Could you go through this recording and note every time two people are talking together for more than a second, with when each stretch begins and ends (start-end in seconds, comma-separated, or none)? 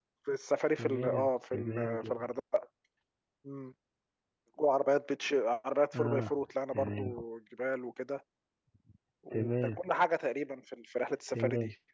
0.8-2.3